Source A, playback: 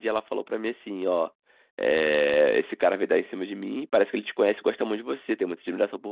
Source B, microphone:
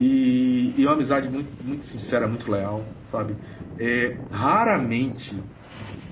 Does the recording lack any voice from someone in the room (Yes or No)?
No